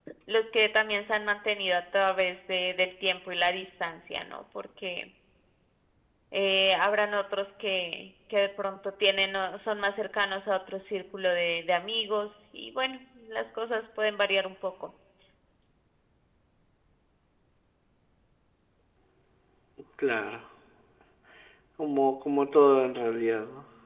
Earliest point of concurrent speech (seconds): none

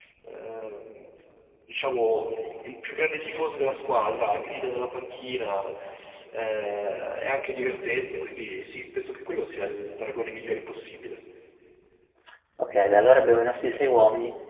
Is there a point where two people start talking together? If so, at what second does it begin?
none

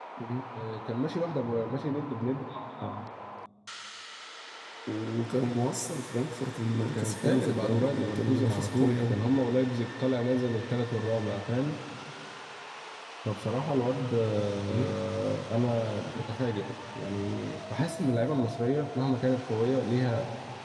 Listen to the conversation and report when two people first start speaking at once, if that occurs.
7 s

